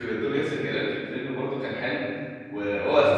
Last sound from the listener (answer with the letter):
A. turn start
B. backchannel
B